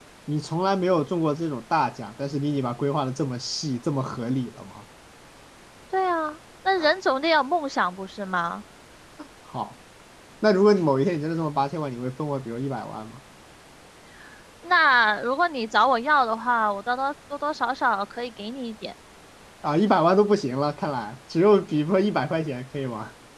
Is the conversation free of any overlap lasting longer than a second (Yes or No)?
Yes